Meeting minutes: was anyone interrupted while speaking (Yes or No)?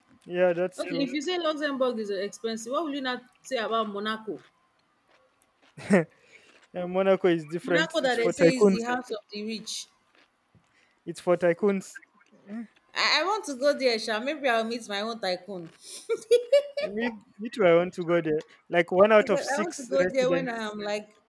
Yes